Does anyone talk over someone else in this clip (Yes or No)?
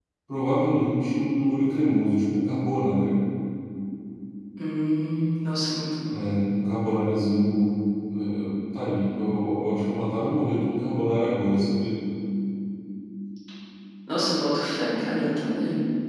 No